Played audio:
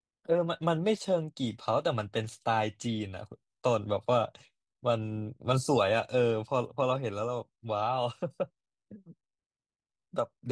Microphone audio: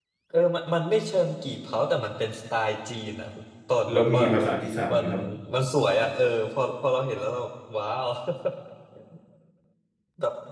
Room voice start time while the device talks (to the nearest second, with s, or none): 4 s